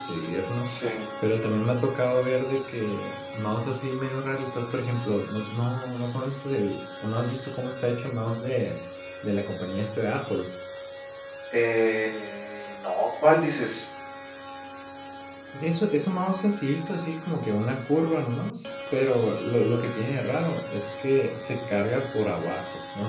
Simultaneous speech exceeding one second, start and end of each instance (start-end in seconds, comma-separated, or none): none